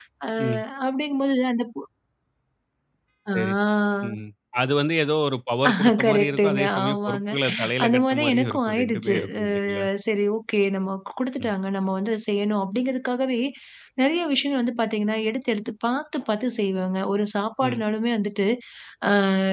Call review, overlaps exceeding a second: present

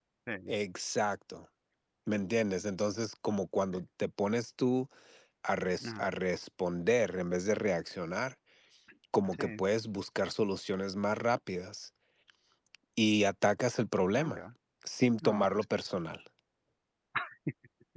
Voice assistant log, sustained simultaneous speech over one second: none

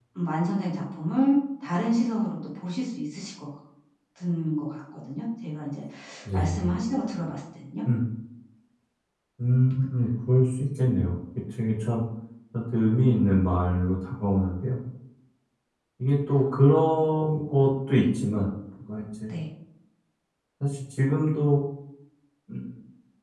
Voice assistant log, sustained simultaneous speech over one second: none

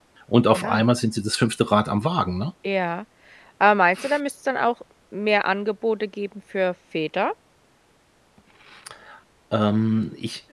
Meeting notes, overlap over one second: none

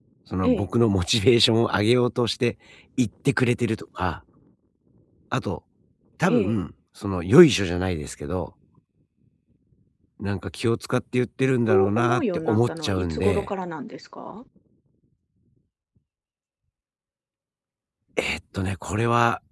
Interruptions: present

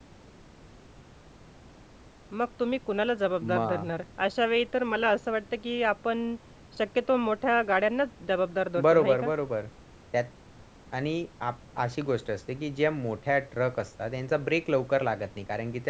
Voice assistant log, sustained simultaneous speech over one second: none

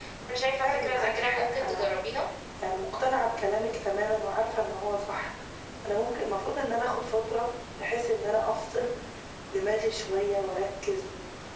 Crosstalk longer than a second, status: present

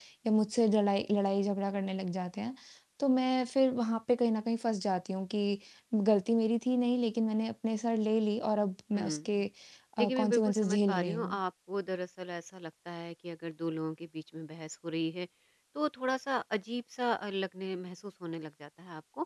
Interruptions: present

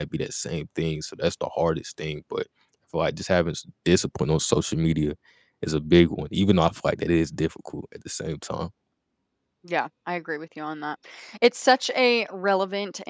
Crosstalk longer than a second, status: none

